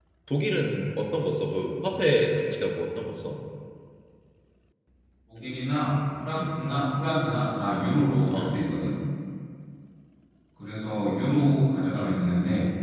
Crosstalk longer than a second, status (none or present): none